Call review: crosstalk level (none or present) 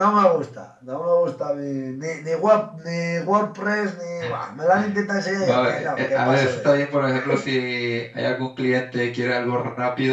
present